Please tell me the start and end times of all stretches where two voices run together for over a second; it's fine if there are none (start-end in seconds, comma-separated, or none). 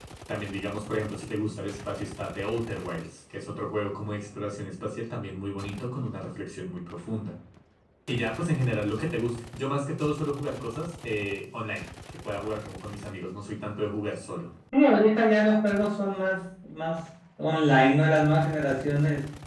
none